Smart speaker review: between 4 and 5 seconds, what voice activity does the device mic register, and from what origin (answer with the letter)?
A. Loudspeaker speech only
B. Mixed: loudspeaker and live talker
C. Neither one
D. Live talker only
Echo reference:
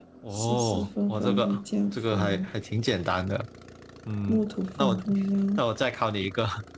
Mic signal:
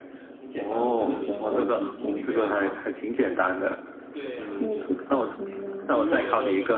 B